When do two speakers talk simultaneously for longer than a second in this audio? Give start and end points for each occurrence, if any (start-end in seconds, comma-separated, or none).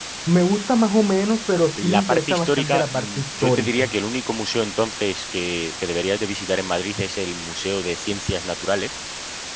1.8-3.9